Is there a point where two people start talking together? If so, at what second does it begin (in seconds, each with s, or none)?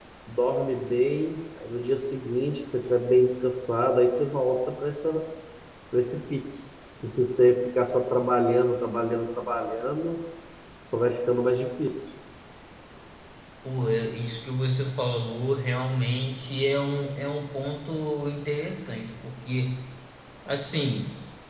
none